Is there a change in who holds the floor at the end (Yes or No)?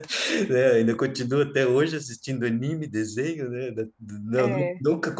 No